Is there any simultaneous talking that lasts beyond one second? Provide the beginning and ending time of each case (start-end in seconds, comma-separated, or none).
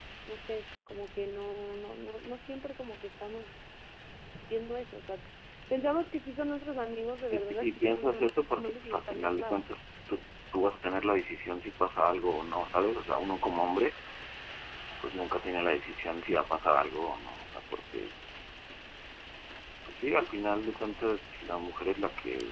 7.3-9.6